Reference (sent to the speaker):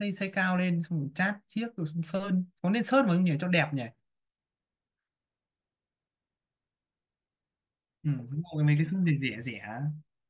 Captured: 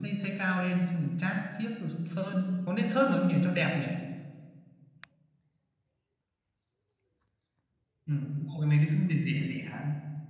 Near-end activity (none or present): none